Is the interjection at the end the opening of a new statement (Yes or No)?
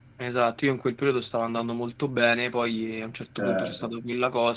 No